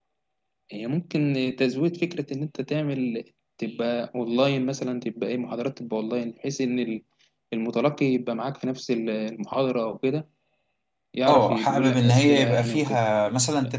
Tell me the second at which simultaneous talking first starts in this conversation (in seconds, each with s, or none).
11.3 s